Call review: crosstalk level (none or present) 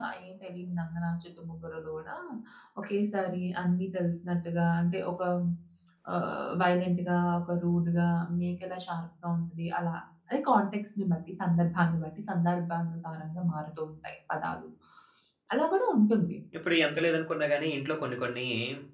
none